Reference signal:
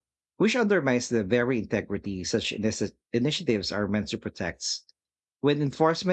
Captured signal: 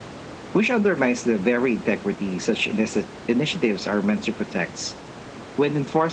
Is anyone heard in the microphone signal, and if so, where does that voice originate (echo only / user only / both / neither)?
echo only